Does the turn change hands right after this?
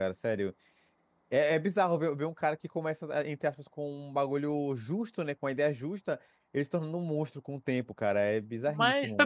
Yes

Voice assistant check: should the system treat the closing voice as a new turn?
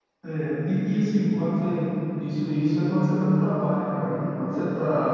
No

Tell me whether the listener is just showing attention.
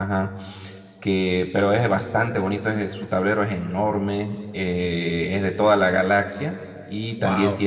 Yes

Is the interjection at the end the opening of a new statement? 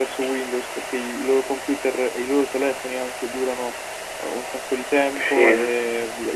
No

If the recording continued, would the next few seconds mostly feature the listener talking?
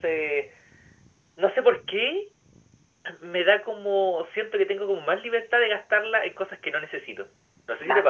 Yes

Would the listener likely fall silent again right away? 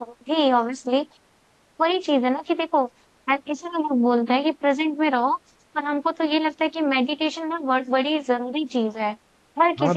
No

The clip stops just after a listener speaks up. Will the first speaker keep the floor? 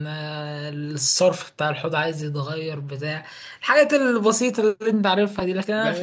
No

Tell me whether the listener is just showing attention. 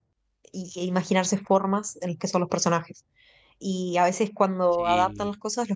Yes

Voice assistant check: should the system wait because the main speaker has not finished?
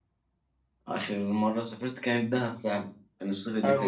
No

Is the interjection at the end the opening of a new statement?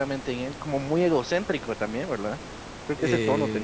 Yes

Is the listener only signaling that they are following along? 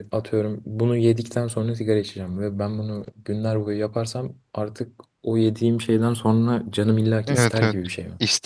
No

